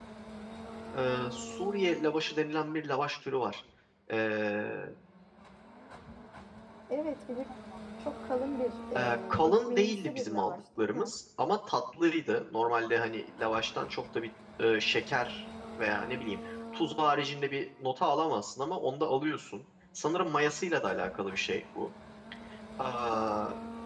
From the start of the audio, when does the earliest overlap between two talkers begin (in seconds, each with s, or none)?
9.0 s